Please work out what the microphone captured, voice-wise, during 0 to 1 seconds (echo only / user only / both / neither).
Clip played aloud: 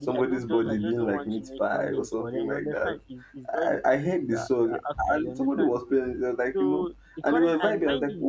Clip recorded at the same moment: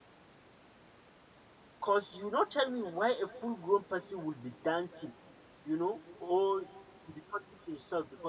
neither